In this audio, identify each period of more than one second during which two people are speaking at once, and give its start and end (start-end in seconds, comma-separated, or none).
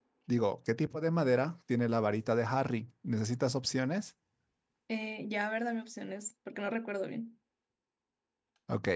none